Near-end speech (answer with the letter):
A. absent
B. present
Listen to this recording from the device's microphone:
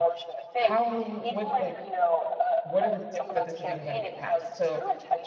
B